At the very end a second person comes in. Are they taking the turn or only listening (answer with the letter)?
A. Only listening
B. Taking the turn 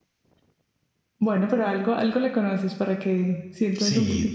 B